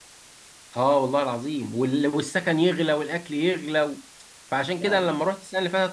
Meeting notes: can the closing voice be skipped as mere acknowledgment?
Yes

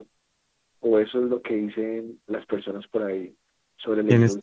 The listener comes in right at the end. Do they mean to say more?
Yes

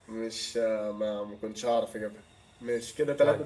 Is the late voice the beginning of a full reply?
Yes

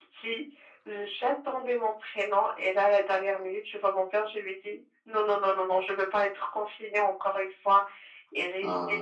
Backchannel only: Yes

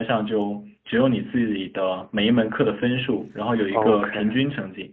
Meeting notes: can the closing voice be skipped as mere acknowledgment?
Yes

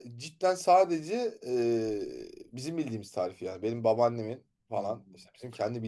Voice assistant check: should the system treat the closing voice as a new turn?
No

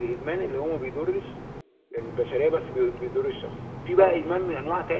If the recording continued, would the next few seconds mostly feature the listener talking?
No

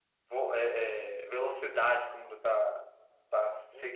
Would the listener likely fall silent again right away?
No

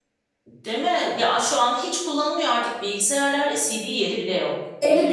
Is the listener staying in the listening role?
No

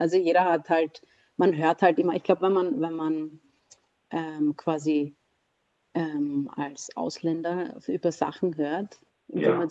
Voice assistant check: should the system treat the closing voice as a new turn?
No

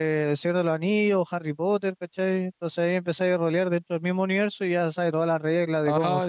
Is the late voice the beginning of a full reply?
Yes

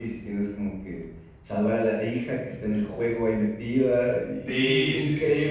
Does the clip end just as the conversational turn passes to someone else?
Yes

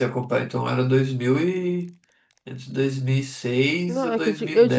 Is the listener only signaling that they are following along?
No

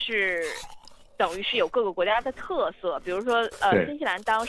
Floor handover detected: No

